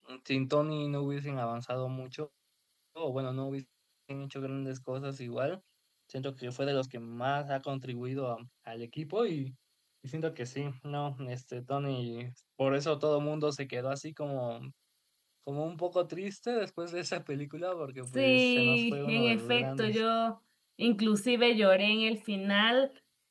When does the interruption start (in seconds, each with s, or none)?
18.1 s